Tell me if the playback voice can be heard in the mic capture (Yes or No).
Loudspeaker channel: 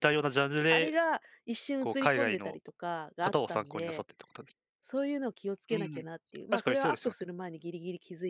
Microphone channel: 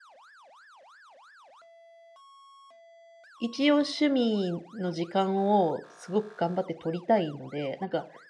No